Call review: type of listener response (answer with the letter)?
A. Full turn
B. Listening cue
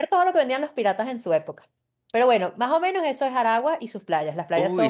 A